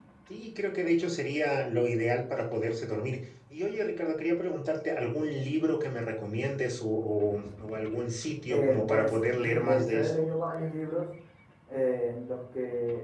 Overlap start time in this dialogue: 9 s

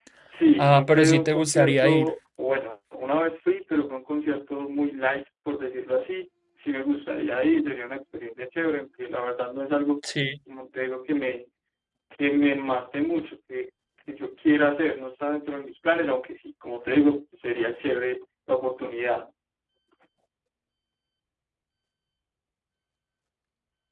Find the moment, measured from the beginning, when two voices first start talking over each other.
1 s

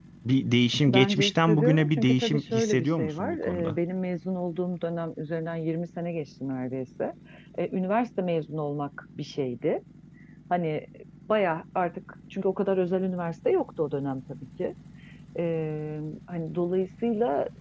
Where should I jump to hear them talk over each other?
1 s

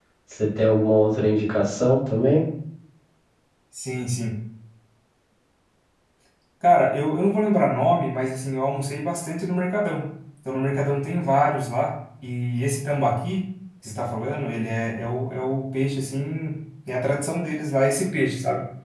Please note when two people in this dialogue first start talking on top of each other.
none

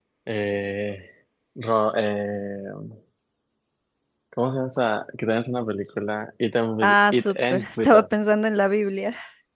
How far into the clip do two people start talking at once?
7 s

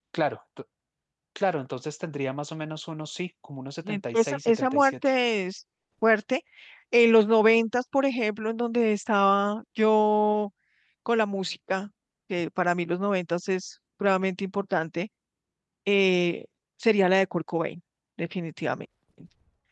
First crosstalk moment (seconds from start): 4 s

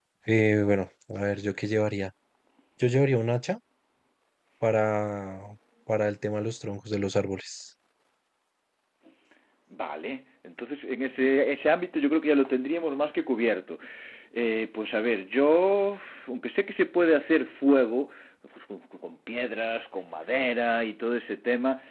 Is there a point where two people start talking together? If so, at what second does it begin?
none

